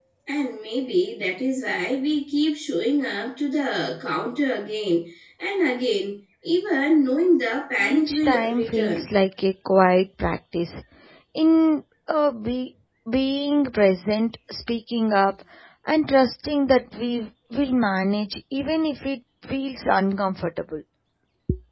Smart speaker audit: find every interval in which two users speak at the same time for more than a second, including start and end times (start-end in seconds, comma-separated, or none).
7.8-9.1